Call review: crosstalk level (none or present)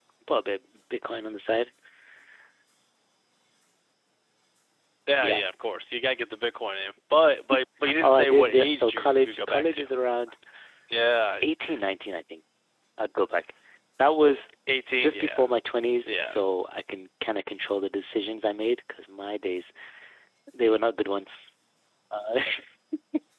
present